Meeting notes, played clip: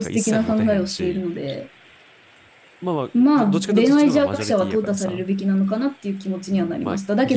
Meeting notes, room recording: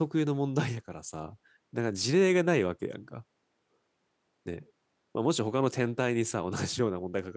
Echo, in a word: none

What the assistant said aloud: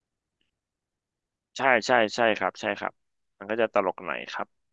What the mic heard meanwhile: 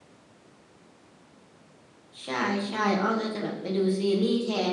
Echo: none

